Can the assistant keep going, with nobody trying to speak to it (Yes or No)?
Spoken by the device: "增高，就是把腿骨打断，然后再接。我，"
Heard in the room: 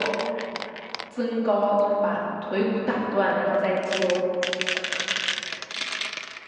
Yes